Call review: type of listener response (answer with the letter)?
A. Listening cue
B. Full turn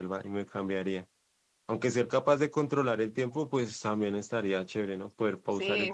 B